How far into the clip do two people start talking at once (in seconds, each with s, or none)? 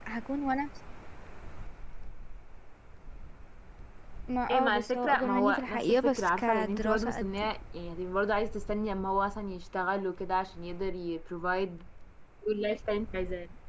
4.5 s